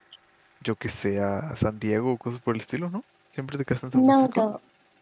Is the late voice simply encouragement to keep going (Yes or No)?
No